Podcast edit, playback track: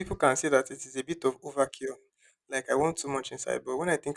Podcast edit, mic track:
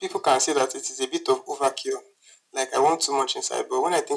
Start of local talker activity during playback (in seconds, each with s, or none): none